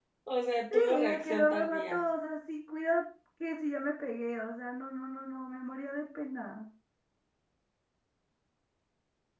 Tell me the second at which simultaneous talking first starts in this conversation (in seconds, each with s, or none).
0.7 s